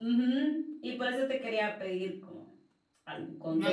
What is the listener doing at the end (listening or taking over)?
taking over